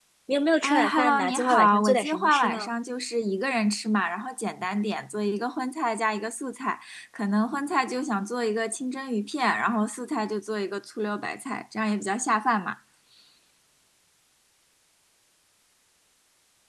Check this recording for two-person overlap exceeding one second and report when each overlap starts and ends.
0.6-2.7

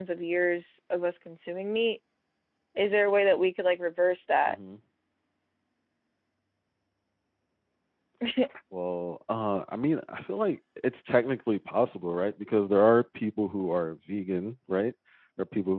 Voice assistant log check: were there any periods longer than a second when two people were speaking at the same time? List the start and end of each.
none

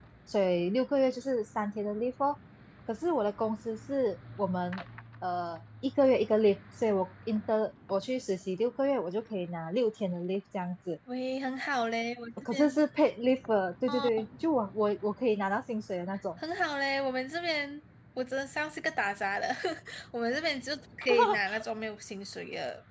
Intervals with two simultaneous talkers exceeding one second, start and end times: none

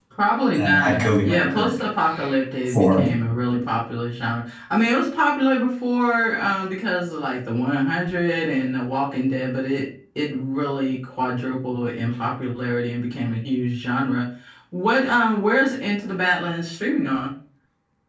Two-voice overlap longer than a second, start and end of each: 0.6-1.8

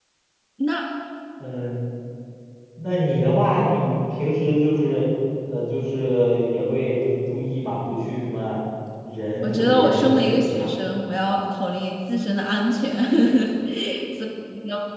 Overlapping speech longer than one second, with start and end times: 9.4-10.7

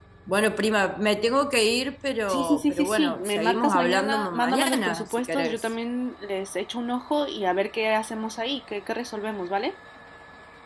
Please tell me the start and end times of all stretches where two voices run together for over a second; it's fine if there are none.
2.3-5.7

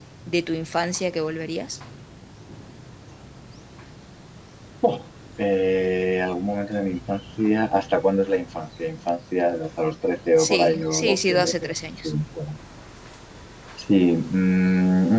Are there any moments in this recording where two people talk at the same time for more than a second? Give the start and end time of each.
10.4-12.1

